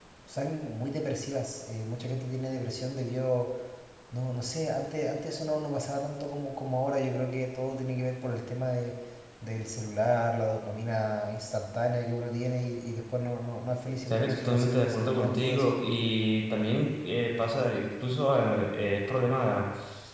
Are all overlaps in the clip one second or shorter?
No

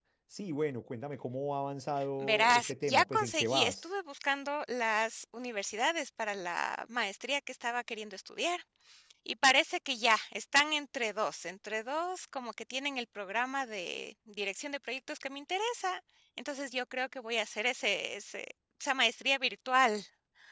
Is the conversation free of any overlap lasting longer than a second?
No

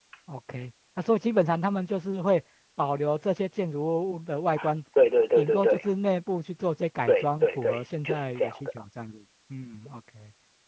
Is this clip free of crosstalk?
No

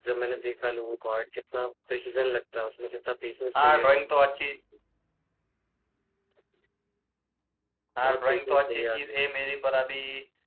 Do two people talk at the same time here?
Yes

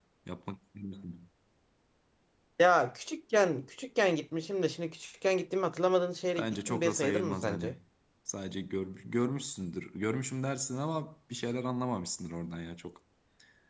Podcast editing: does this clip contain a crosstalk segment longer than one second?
Yes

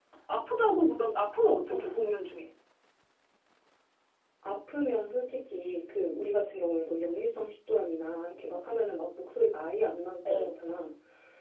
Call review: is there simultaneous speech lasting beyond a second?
No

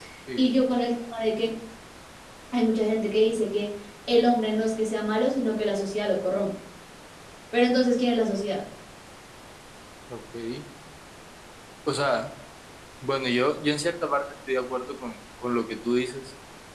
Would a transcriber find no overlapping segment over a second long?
Yes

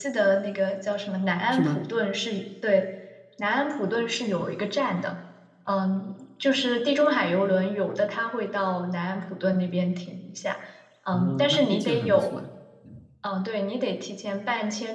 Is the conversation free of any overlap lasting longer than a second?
No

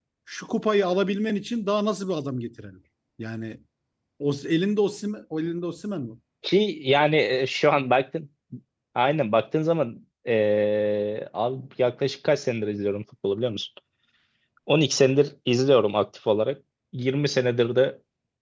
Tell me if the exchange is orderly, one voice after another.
Yes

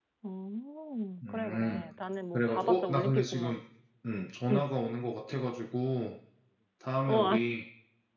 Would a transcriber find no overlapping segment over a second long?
No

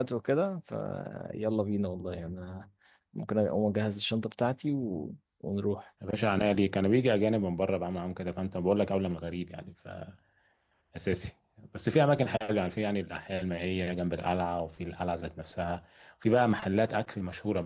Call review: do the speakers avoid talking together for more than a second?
Yes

